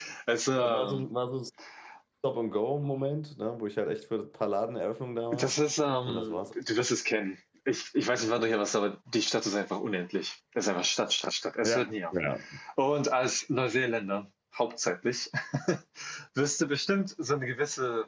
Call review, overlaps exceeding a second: none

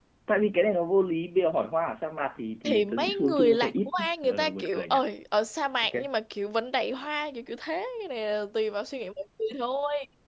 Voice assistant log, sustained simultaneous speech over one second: present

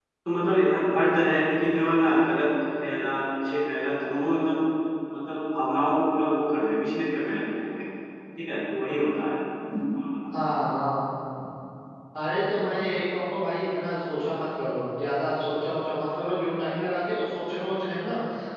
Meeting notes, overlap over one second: none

